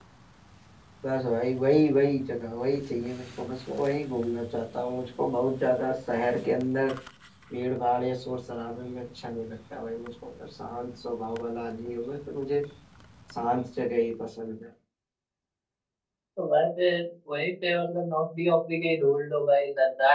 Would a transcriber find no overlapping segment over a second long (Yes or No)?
Yes